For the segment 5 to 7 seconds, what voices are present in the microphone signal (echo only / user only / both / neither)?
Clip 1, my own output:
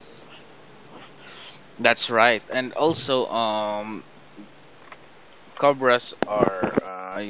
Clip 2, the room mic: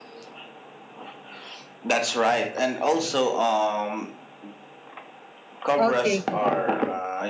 both